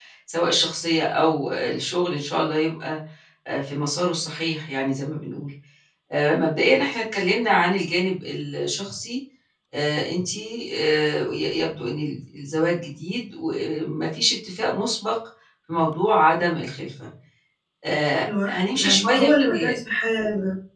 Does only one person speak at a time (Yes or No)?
No